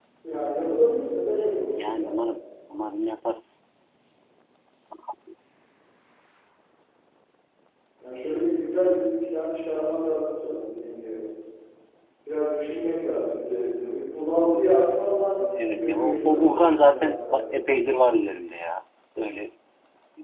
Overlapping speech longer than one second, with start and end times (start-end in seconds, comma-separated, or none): 15.6-17.6